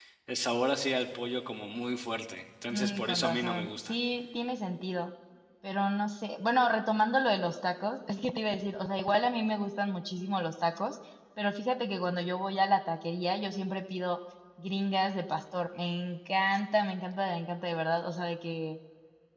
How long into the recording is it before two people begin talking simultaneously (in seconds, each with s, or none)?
2.7 s